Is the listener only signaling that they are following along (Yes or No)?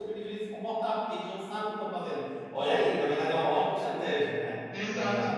No